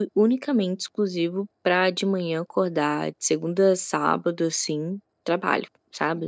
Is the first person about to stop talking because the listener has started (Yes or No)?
Yes